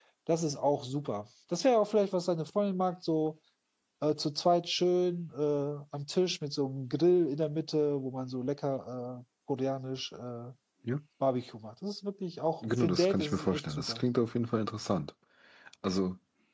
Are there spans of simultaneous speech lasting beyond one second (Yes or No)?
Yes